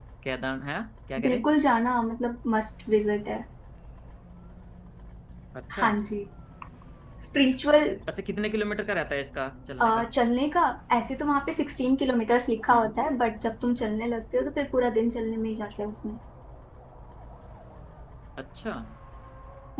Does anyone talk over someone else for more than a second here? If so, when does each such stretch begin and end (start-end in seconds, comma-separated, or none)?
none